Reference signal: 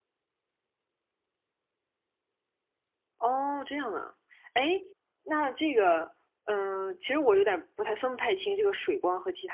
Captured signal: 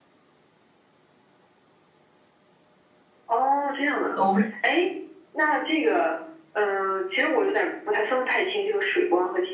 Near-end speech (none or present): present